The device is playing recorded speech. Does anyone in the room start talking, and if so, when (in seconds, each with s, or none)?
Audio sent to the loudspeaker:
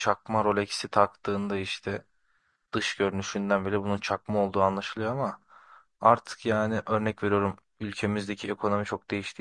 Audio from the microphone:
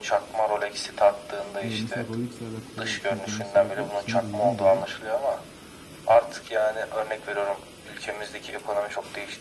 1.6 s